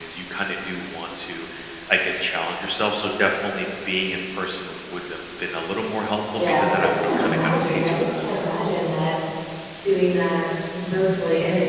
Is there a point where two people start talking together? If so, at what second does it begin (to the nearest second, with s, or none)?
6 s